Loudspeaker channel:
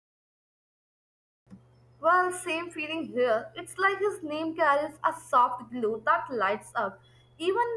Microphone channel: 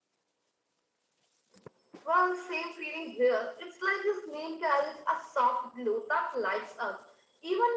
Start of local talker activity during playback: none

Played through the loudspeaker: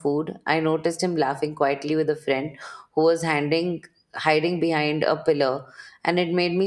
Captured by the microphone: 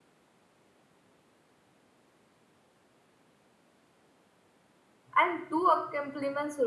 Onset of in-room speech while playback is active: 5 s

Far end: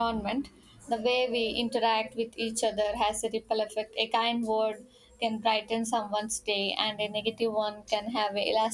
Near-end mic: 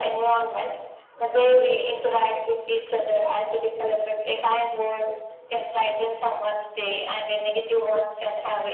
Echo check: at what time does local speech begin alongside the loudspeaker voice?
none

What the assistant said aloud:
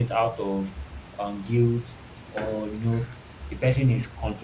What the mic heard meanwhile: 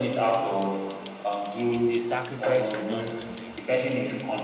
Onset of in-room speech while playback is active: 2 s

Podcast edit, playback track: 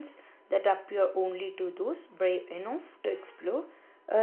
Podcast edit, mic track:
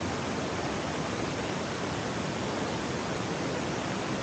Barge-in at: none

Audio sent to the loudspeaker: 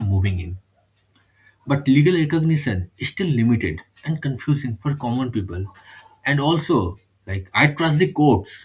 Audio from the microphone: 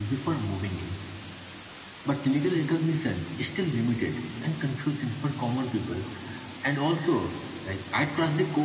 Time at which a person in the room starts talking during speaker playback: none

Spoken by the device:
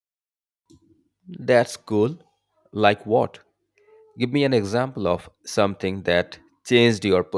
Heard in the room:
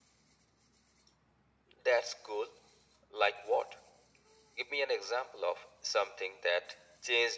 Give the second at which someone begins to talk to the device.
none

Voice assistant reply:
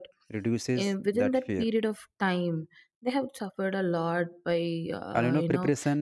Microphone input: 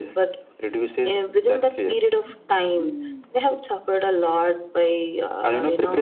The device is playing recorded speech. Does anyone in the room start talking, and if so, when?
none

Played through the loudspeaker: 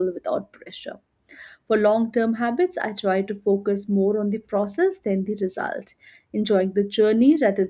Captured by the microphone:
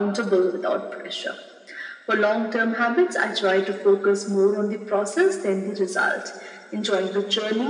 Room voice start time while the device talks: none

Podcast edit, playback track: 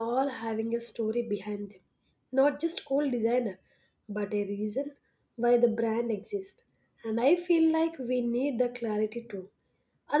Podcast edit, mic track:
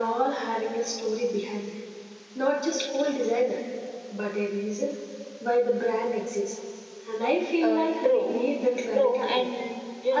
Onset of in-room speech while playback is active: 8 s

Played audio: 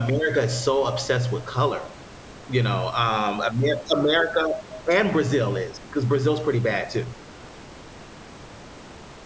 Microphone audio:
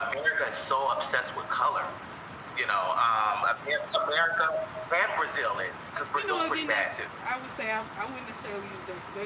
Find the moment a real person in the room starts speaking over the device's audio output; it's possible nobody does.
6 s

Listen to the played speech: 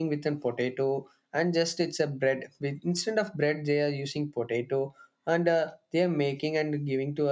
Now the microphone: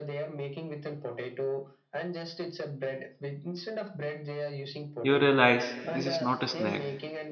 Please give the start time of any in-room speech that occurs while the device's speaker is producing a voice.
5 s

